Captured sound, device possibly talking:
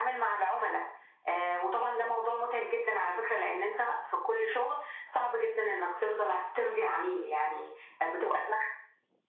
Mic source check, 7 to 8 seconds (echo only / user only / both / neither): echo only